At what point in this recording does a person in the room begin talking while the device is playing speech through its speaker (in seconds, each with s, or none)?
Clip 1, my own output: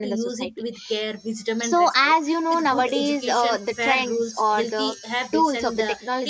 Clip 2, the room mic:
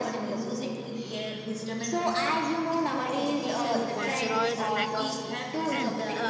3.7 s